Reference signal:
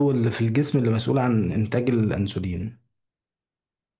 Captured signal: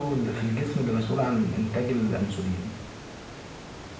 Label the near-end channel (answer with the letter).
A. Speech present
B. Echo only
B